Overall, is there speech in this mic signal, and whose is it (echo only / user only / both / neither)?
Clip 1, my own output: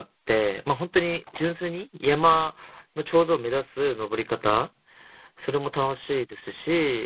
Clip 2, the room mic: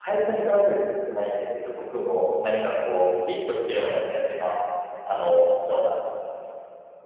user only